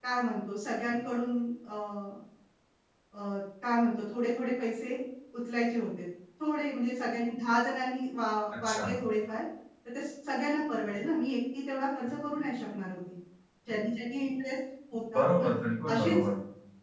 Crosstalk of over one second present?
No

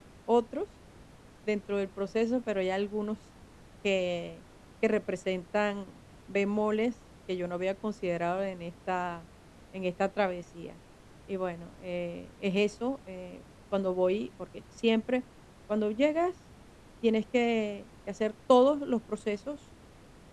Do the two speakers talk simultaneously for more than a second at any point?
No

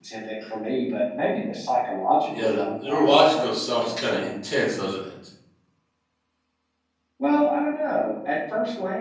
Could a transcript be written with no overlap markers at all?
No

